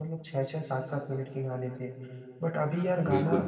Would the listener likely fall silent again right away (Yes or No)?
Yes